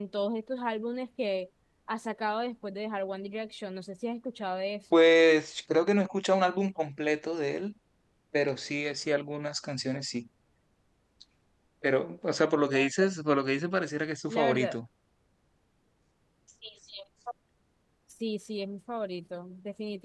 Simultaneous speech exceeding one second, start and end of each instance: none

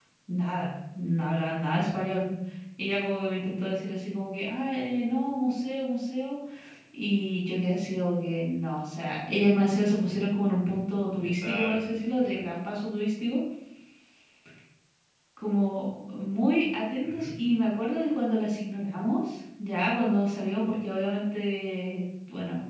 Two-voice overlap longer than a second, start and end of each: 11.2-12.4

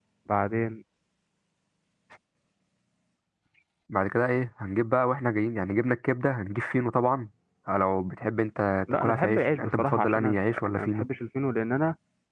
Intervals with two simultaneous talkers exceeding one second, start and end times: 8.9-11.1

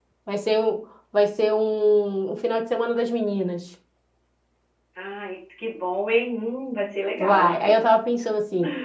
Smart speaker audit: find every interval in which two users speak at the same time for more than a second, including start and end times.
none

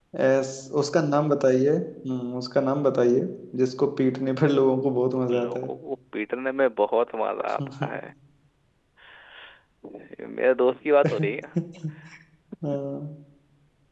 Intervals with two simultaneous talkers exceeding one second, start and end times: none

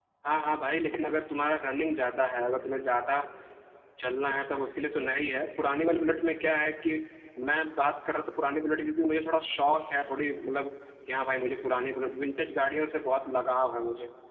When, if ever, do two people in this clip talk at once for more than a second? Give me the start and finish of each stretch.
none

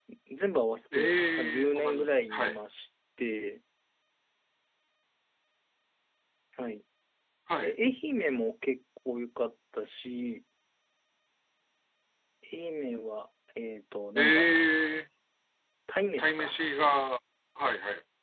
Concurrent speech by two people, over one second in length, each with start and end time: 0.9-2.6

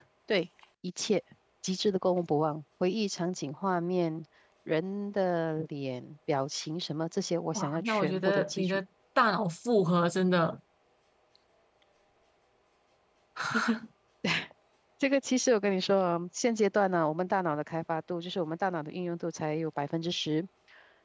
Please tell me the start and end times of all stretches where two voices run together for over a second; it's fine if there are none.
7.5-8.8

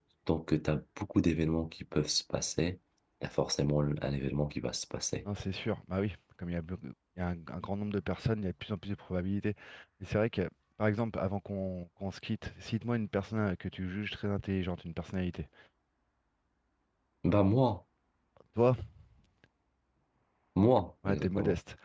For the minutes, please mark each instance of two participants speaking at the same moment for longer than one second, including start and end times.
none

